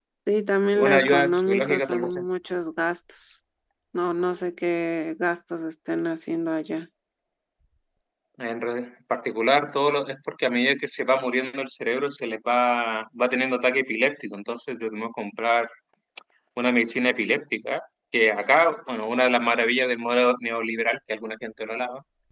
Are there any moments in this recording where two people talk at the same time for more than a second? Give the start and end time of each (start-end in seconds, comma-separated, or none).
0.7-2.1